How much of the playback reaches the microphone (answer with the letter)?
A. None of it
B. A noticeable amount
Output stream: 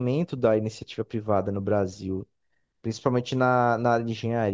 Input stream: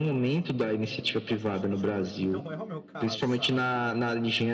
B